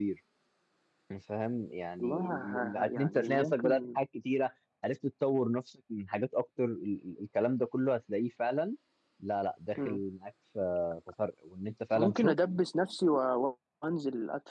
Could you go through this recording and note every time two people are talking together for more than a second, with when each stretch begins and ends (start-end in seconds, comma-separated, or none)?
2.0-4.0